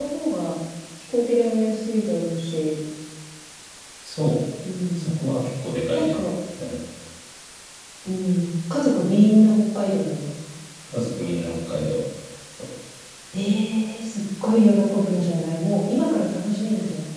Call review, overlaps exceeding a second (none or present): none